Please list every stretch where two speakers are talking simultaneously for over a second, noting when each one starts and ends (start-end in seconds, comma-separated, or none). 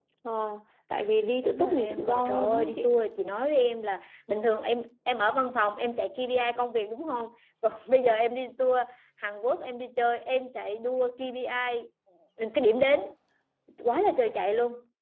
1.4-2.9